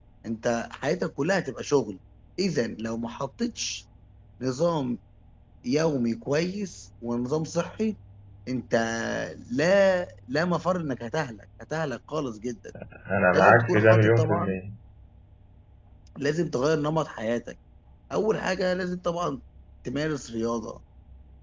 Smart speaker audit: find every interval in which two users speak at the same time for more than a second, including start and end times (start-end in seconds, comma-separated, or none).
13.3-14.6